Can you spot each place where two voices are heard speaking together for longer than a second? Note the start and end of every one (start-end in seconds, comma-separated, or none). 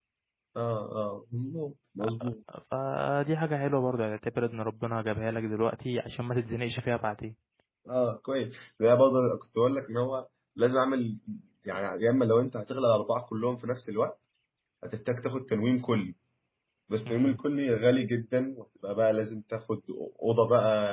none